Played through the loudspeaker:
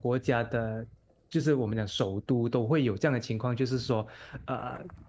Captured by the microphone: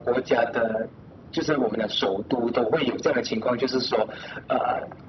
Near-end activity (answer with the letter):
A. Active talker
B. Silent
B